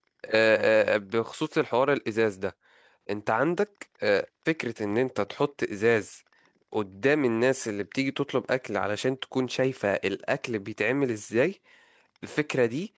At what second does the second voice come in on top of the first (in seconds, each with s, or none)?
none